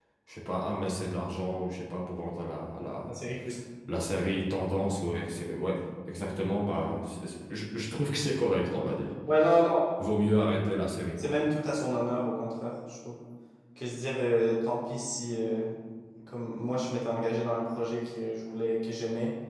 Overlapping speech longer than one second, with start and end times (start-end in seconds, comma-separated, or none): none